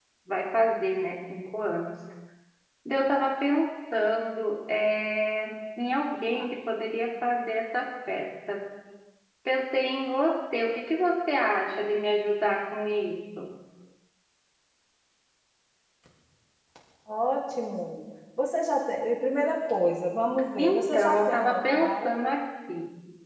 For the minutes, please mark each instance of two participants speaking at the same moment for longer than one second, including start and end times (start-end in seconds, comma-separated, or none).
20.6-22.1